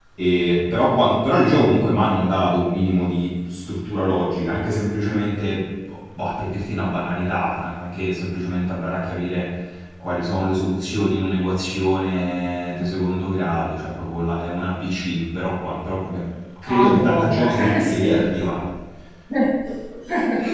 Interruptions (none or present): present